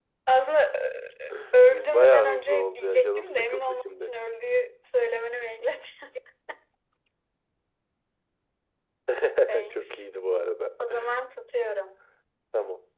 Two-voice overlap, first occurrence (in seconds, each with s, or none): 1.7 s